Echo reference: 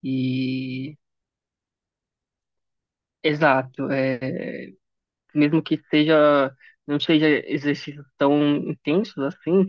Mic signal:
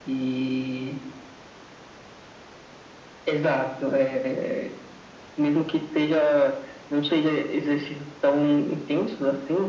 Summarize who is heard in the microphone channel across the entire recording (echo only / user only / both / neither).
echo only